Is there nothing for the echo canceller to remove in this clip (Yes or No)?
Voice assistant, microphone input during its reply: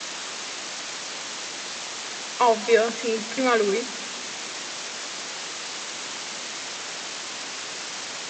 Yes